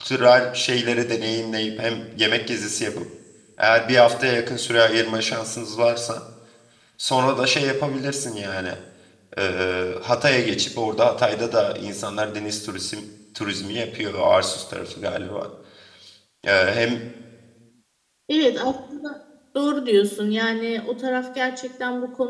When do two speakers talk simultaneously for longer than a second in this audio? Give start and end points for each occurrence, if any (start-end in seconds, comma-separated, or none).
none